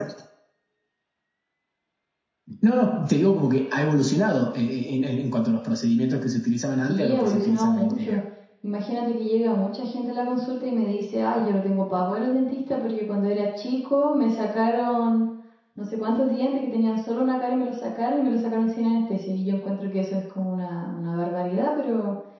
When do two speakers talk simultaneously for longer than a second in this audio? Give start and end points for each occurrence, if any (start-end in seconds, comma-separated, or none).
6.8-8.2